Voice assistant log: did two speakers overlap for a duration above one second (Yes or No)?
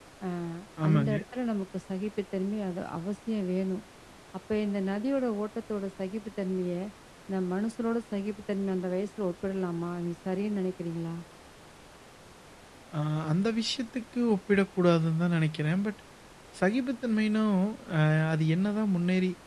No